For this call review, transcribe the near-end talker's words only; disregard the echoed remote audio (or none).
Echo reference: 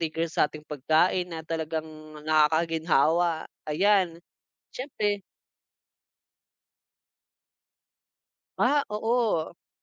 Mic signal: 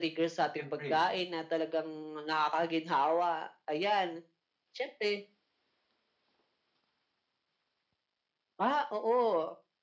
Siyempre,